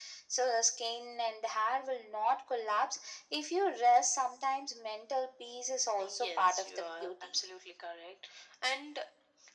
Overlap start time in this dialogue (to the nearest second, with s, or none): 6 s